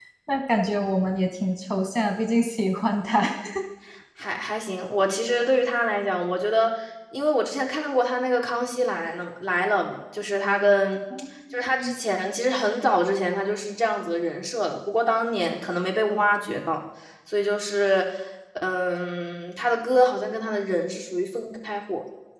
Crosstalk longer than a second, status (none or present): none